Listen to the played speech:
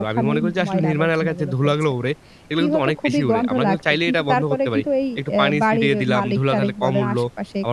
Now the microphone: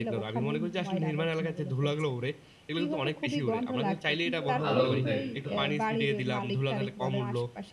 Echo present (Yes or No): Yes